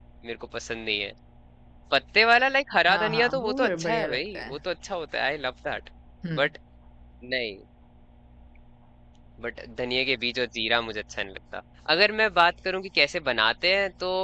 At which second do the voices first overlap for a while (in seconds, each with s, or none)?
2.9 s